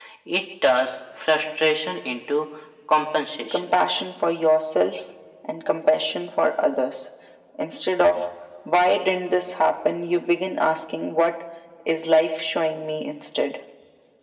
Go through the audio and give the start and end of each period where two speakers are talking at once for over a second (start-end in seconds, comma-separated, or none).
none